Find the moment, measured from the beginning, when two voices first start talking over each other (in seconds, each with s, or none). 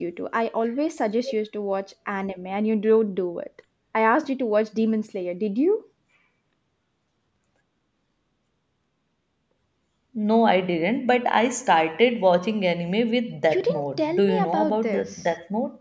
13.5 s